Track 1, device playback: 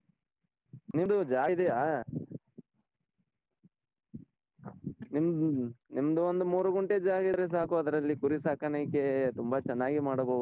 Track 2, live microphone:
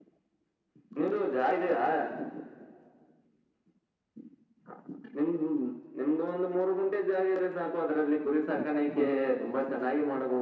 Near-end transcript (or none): ಹ್ಮ್